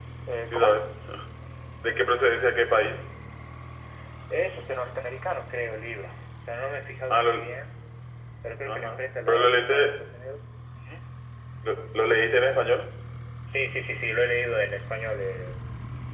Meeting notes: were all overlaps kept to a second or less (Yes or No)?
No